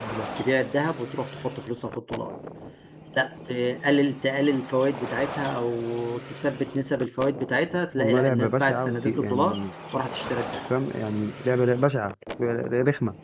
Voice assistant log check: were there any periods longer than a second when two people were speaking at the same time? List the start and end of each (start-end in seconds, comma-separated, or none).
8.0-9.6